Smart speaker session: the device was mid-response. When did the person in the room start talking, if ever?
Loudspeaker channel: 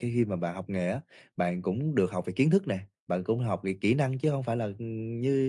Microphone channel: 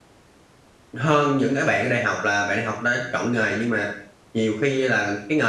1.0 s

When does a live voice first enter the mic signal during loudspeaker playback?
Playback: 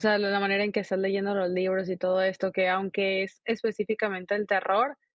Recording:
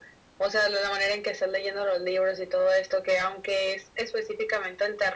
none

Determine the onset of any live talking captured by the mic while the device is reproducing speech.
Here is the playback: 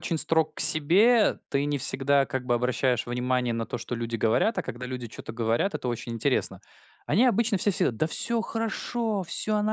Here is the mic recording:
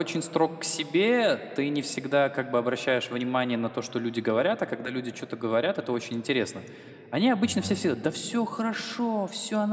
7.4 s

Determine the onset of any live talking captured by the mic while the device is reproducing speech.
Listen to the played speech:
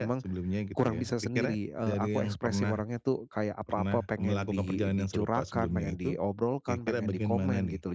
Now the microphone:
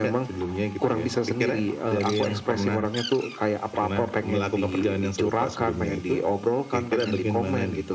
none

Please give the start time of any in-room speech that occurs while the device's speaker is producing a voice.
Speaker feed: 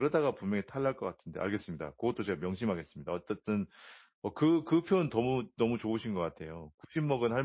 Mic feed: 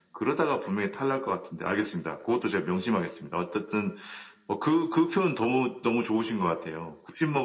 none

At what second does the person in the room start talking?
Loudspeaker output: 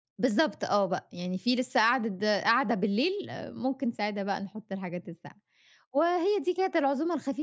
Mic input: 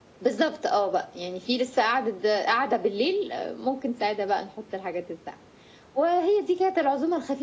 none

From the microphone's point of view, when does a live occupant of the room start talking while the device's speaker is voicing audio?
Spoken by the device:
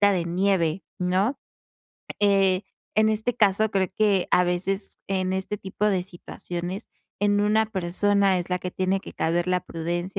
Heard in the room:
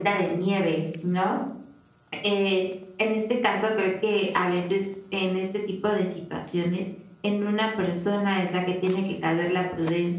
none

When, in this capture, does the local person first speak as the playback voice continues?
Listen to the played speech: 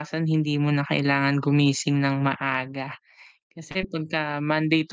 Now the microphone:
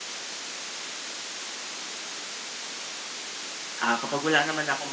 3.8 s

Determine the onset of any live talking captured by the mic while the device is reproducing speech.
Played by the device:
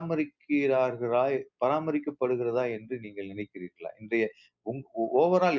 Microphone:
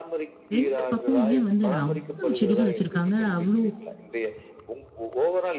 0.6 s

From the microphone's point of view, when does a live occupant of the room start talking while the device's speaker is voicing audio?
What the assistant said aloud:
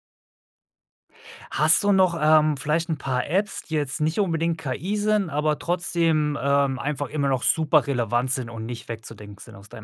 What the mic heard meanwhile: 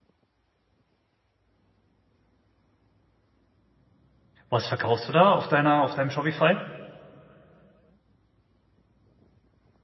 4.5 s

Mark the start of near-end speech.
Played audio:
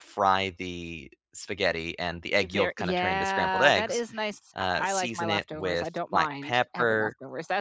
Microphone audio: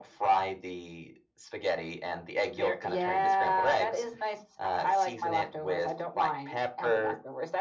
none

